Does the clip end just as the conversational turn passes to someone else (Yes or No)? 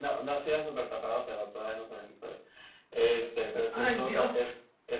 No